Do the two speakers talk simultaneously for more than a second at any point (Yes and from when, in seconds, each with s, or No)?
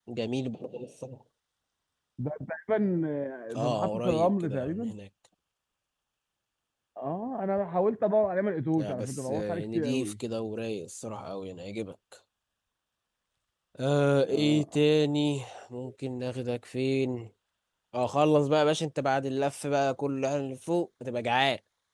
Yes, from 3.6 s